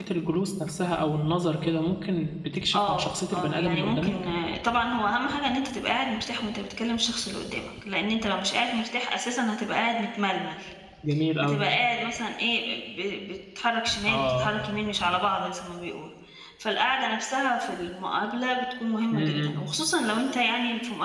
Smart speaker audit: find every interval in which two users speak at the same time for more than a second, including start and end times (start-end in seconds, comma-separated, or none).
2.7-4.1